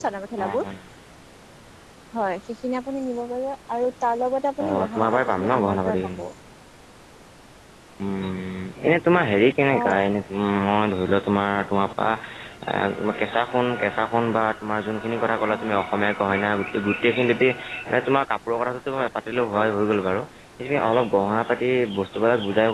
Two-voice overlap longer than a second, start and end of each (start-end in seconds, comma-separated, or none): 4.7-6.2